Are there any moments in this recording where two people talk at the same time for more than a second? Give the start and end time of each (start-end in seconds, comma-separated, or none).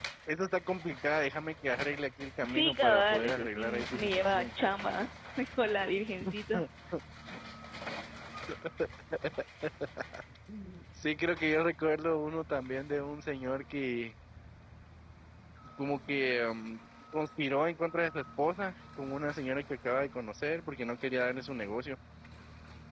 2.4-4.5